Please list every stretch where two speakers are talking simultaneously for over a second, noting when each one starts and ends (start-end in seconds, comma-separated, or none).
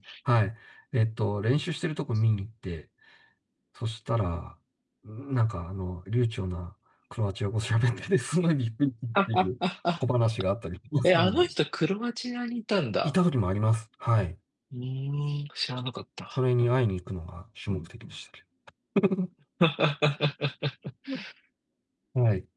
none